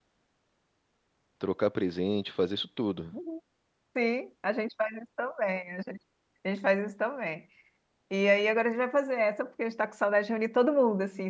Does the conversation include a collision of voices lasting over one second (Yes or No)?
No